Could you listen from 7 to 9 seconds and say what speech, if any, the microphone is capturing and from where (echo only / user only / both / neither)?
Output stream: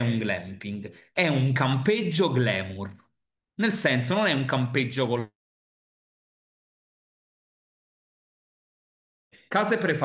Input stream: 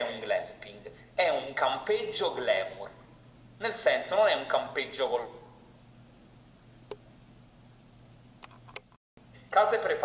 neither